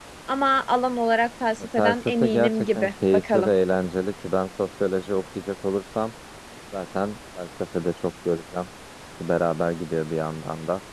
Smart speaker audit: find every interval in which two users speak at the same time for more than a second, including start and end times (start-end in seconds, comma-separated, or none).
1.8-3.5